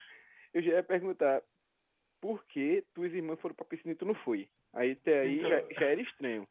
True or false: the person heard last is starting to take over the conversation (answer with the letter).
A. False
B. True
A